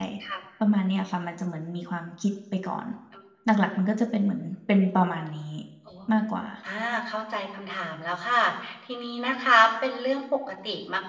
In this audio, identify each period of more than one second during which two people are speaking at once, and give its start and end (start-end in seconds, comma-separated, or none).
none